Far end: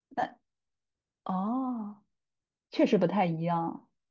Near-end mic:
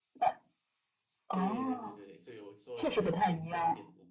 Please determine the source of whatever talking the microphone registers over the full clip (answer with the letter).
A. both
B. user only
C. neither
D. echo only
A